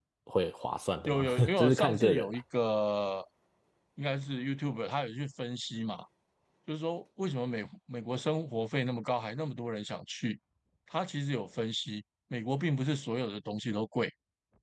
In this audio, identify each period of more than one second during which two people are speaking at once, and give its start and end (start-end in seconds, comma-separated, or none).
1.1-2.4